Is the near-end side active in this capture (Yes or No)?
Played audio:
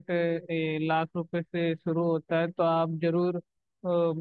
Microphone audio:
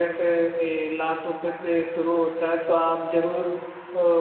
No